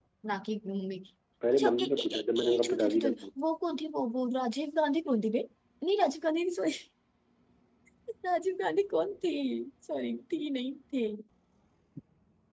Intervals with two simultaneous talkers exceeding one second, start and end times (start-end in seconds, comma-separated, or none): 1.5-3.0